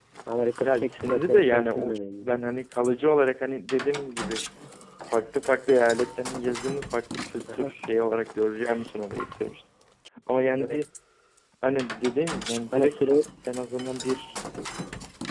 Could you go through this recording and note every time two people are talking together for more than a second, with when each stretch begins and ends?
0.6-2.4

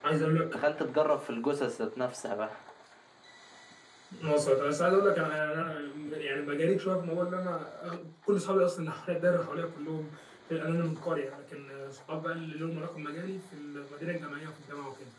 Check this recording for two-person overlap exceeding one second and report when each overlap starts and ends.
none

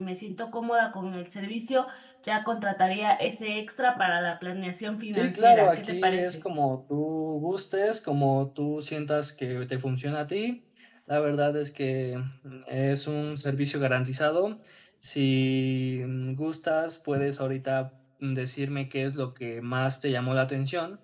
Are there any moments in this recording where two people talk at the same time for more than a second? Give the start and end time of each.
5.1-6.4

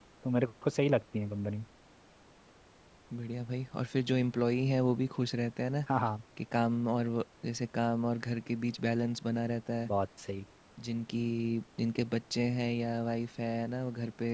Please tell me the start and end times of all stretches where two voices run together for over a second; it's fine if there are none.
none

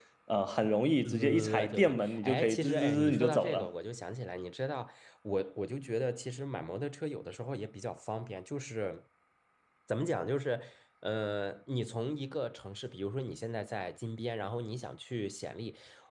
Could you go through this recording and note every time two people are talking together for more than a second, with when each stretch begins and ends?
1.0-3.7

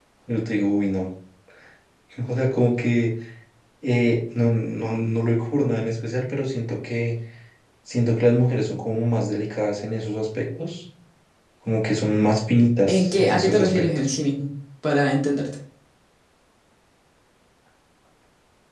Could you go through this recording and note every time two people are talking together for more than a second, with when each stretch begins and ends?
12.9-14.2

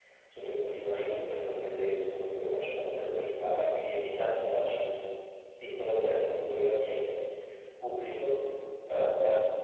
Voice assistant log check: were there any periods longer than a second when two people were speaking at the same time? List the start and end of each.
none

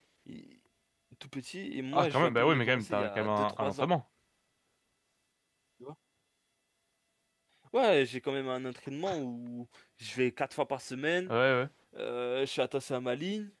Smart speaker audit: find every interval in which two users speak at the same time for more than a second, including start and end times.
1.9-3.9

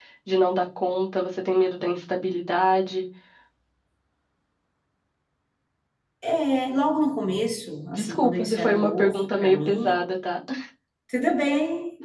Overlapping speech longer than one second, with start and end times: 8.0-10.0

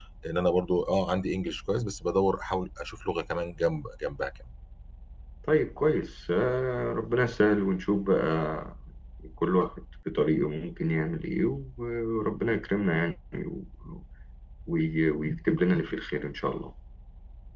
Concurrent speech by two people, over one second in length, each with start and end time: none

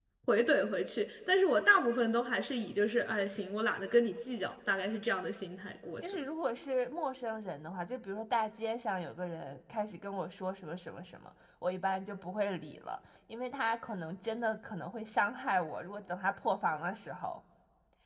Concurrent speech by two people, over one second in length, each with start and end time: none

